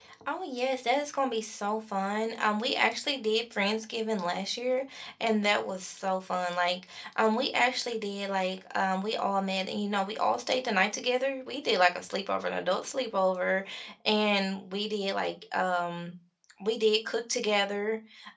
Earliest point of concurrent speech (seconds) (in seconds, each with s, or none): none